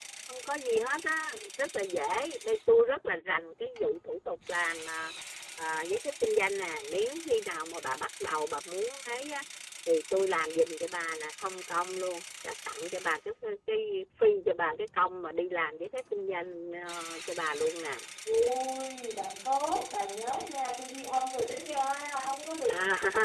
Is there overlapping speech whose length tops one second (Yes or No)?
No